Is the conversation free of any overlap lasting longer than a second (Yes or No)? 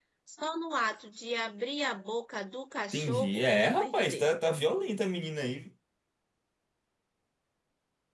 No